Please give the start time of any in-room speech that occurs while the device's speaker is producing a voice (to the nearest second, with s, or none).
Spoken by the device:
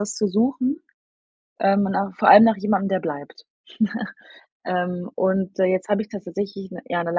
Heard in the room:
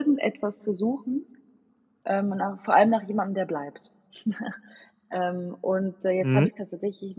6 s